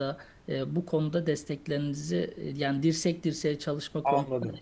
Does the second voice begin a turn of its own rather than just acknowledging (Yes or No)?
Yes